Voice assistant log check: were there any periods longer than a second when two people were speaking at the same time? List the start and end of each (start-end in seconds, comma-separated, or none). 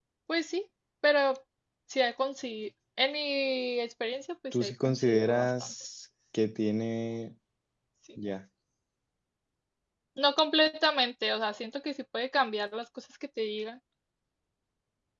4.5-5.7